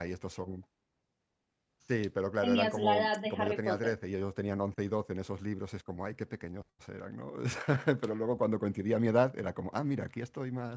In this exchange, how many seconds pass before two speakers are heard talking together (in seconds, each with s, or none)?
2.4 s